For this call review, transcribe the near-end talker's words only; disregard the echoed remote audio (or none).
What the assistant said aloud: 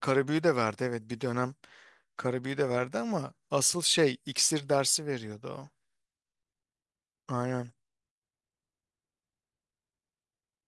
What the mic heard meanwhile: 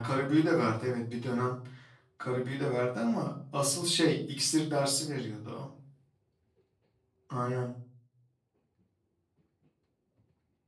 none